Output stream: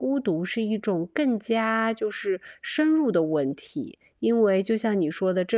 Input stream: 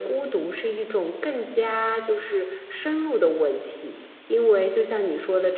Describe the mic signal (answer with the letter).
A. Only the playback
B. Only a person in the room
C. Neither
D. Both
A